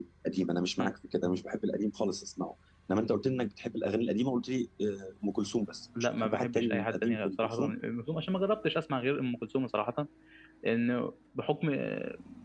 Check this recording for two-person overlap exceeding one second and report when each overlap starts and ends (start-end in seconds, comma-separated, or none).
6.2-7.7